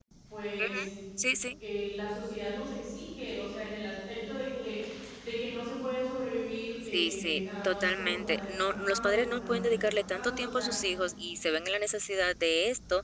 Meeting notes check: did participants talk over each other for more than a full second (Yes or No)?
Yes